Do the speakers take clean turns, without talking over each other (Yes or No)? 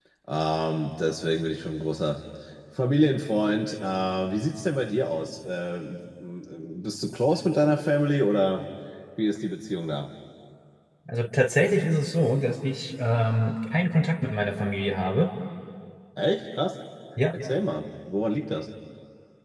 Yes